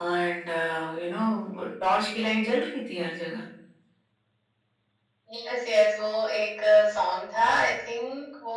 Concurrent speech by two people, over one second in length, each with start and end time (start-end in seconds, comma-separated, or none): none